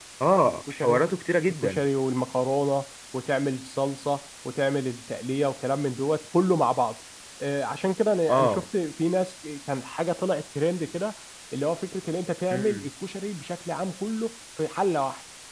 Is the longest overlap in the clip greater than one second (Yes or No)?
No